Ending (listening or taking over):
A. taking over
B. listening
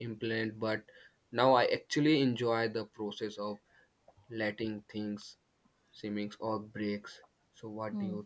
A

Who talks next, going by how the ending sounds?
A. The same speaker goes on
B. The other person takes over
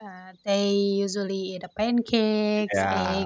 A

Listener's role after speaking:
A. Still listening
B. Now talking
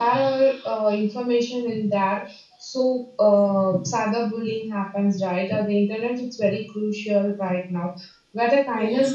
A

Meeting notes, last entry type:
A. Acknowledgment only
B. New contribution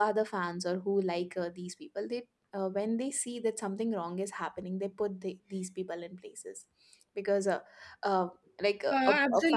B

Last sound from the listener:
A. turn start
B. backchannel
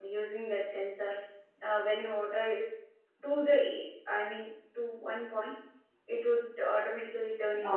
A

